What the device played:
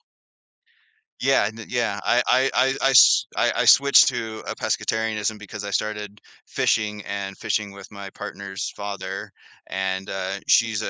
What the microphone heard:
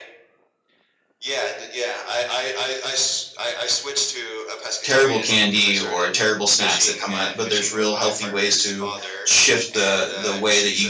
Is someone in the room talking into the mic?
Yes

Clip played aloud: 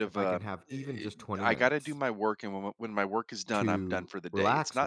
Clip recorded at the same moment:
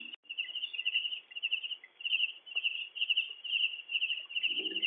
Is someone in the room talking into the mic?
No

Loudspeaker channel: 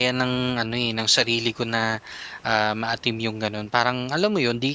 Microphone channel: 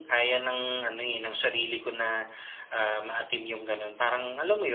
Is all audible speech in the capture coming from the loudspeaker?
Yes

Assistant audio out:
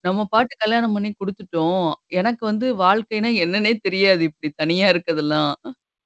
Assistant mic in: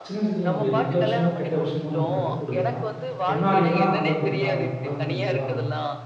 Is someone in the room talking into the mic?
Yes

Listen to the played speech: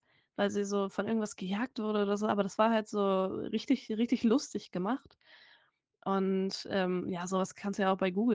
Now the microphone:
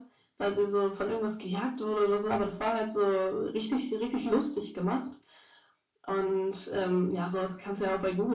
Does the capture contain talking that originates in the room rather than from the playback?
No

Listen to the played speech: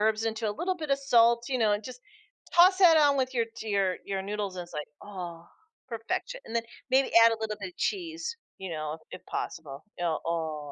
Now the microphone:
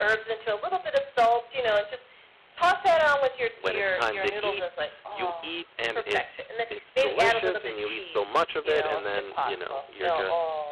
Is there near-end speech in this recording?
Yes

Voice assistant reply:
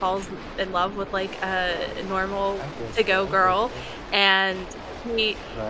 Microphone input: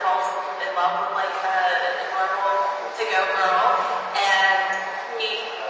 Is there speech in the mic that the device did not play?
No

